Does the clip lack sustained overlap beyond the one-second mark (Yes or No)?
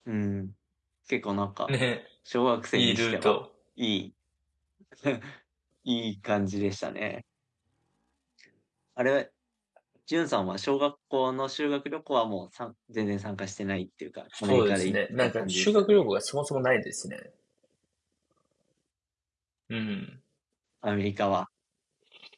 No